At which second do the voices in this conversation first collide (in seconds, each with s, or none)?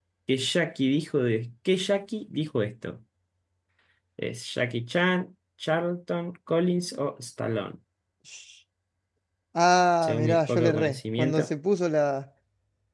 10.0 s